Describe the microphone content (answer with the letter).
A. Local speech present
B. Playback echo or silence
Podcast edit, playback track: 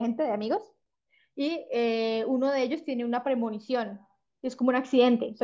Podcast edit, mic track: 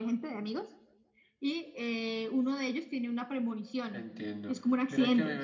A